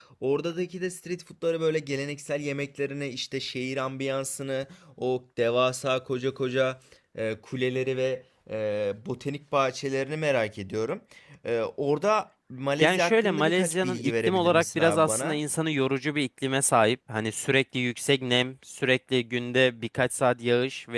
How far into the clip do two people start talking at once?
13 s

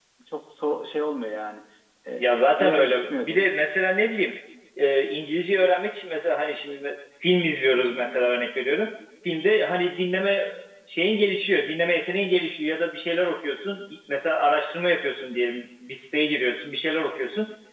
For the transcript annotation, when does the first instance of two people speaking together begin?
2 s

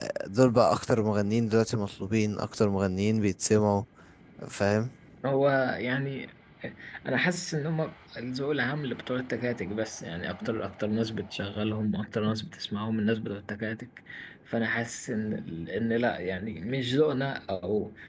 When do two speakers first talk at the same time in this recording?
none

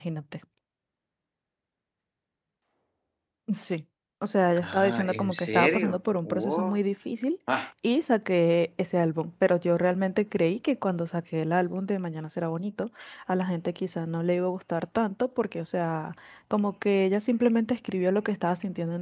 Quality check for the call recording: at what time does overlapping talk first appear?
5 s

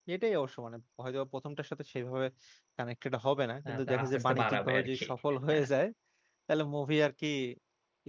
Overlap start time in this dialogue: 4 s

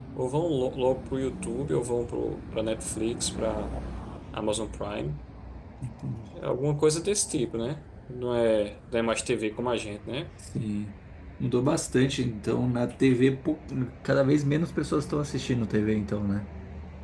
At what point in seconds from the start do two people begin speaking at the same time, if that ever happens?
none

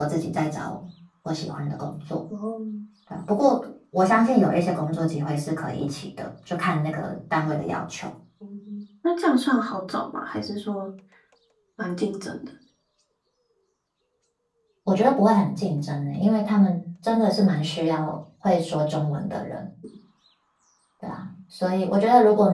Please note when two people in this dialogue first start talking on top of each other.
none

